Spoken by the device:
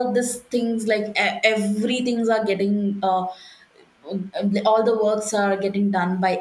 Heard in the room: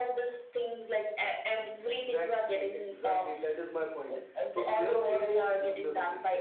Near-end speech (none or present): present